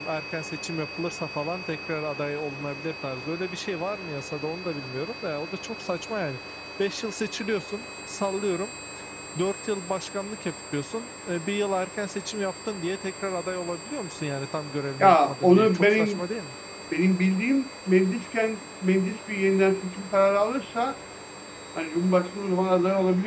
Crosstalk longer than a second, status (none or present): present